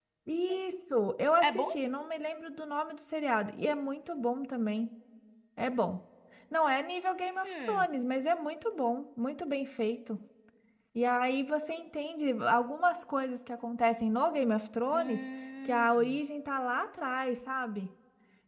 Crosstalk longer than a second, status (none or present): none